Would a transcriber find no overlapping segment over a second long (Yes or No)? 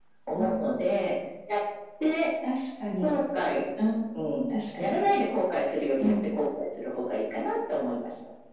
Yes